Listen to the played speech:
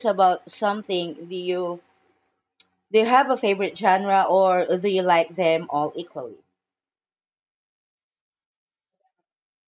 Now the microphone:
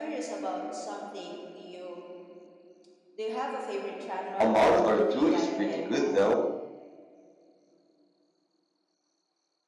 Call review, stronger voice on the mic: user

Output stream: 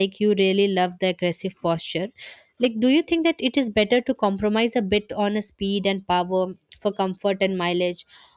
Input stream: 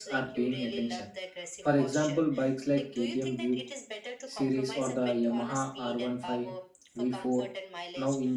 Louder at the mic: user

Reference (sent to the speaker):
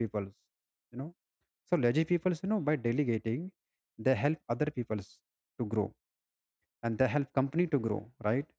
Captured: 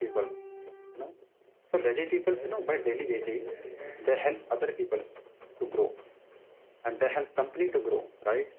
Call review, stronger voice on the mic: echo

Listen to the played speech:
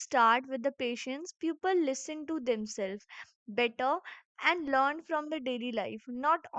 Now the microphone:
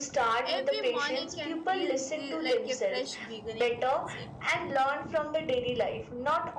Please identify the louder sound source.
echo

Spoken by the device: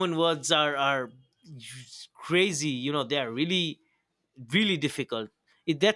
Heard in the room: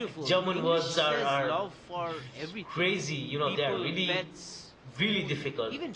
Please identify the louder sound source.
echo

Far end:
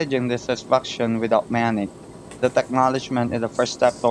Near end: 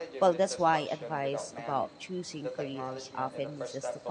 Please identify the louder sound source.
user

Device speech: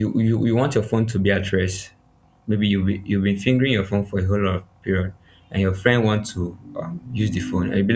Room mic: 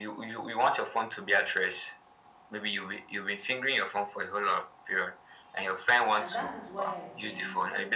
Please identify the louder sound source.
echo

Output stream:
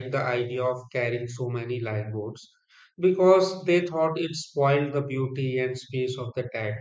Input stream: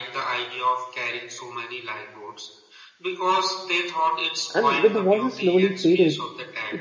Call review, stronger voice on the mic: user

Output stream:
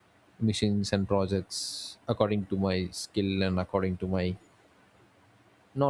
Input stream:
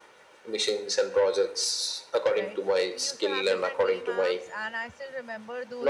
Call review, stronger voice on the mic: echo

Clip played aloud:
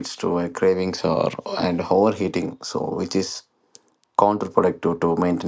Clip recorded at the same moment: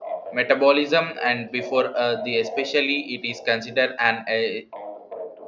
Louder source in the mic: user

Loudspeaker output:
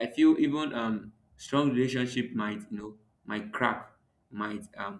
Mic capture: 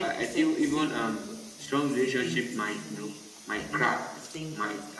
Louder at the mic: echo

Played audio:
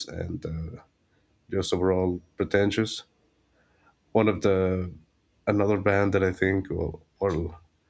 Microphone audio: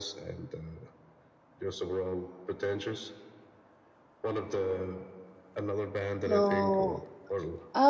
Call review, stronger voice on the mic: user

